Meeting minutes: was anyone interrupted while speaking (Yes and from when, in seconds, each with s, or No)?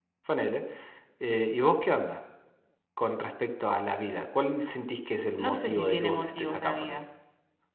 Yes, from 5.4 s